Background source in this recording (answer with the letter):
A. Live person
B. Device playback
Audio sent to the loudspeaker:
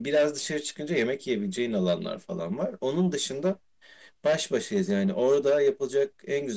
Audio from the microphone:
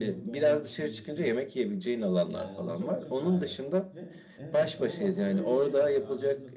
A